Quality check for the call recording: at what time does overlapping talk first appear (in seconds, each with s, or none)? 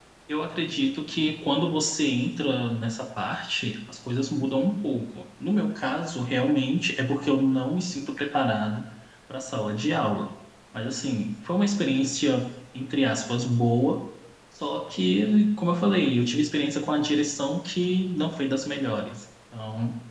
none